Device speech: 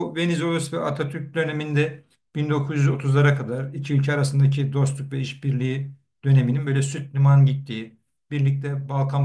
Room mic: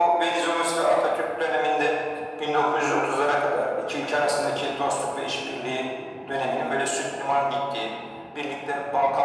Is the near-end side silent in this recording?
Yes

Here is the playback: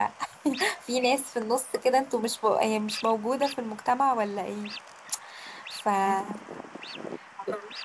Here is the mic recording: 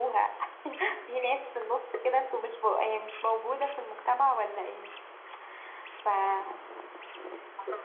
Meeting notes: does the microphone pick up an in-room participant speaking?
No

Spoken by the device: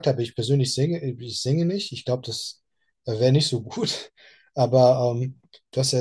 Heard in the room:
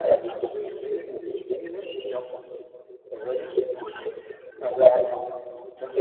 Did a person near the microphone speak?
No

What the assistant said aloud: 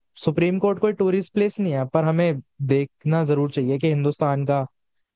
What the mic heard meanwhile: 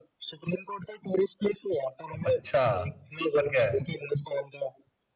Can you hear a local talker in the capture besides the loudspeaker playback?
Yes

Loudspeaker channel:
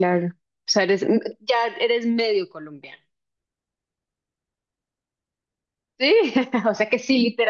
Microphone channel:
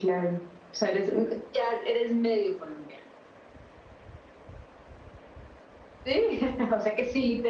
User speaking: No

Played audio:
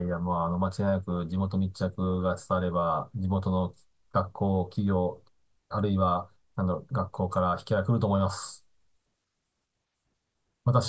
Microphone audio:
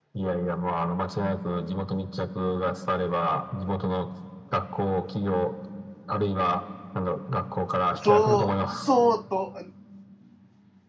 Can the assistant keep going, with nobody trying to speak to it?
No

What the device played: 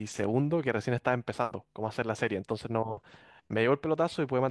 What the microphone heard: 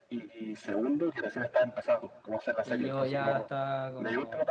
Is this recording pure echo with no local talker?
No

